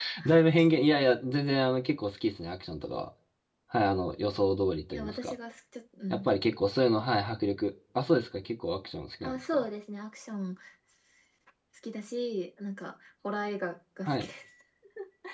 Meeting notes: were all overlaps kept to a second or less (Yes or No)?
Yes